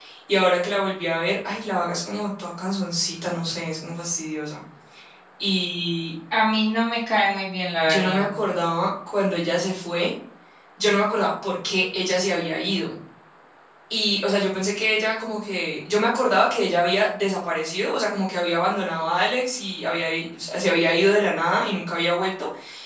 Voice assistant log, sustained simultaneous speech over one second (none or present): none